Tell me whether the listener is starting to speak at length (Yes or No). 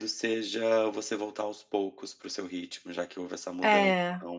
No